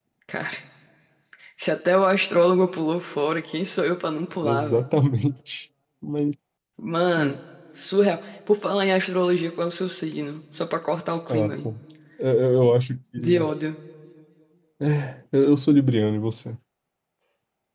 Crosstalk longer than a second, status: none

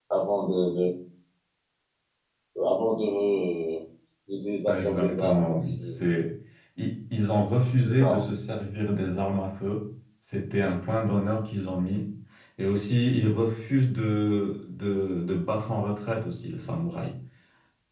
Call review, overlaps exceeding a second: present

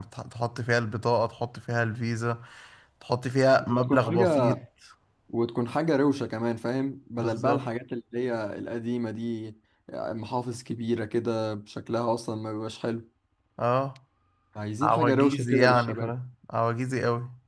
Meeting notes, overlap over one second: present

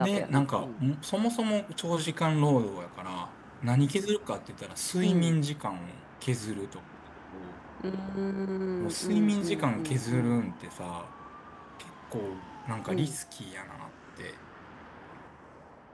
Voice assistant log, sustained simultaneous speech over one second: present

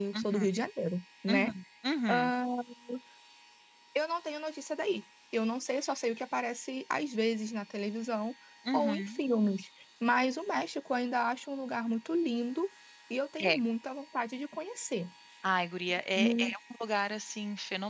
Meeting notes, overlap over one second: none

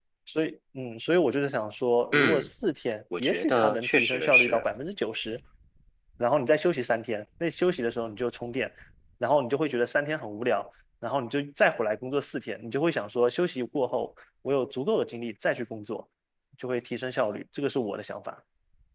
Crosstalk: present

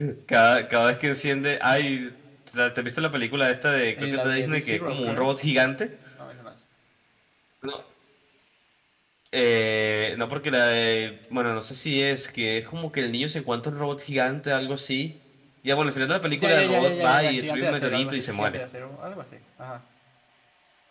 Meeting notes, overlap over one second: present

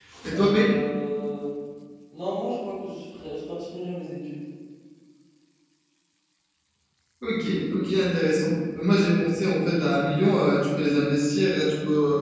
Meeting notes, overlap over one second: none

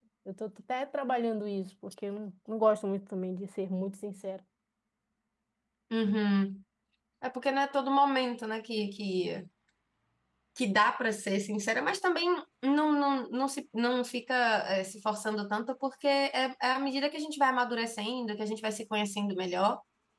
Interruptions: none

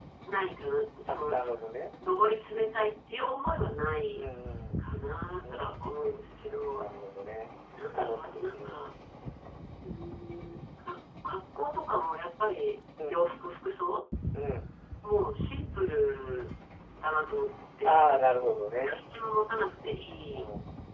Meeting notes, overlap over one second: present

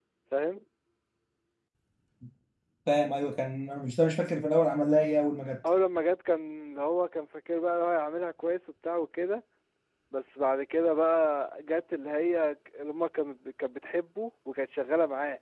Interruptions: none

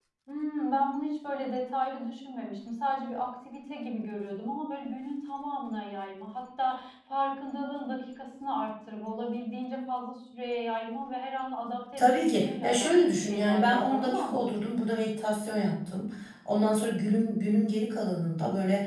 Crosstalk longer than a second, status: present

